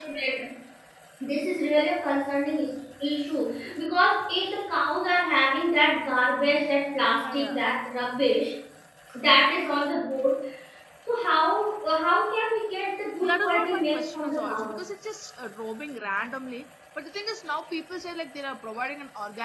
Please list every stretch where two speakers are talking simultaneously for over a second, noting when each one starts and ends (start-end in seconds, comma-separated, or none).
13.2-14.8